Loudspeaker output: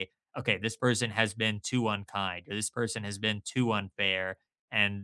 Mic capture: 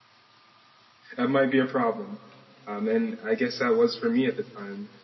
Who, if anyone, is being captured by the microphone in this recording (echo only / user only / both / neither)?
user only